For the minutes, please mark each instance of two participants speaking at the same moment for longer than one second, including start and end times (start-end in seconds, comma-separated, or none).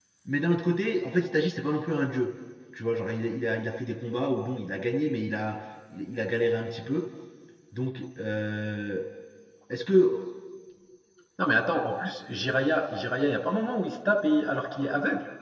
none